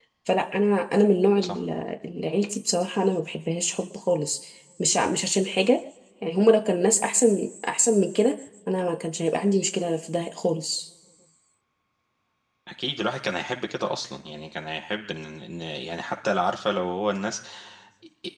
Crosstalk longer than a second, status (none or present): none